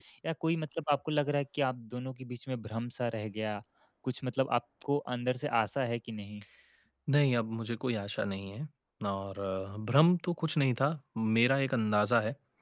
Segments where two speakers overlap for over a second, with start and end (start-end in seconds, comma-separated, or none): none